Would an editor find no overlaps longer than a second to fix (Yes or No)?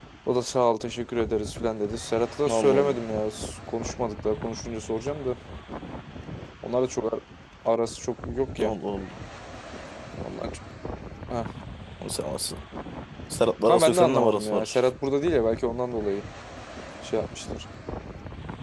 No